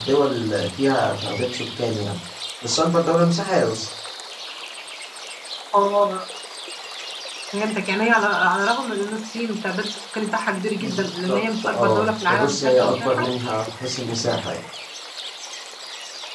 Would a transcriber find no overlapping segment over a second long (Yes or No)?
No